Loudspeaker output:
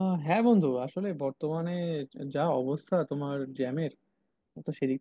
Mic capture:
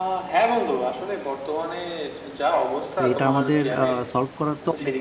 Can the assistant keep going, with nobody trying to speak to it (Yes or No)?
No